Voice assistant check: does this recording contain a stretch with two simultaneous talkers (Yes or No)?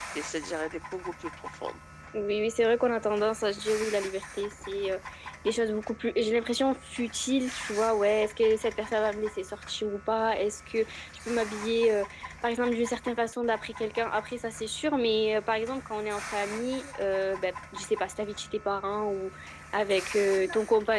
No